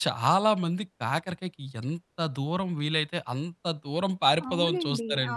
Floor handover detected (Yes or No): Yes